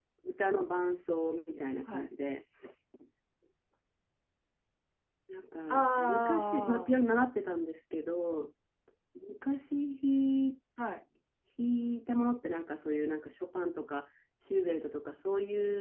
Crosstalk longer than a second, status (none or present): present